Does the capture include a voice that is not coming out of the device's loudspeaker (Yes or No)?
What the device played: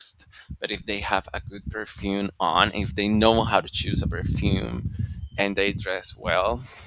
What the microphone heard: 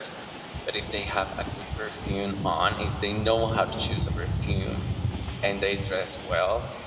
No